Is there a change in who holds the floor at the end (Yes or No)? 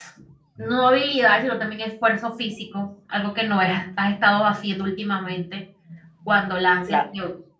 No